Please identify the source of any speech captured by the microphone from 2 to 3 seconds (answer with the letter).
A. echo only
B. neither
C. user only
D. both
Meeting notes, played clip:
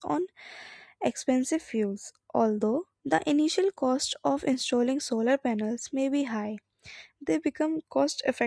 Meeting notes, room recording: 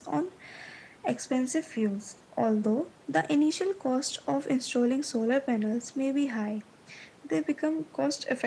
A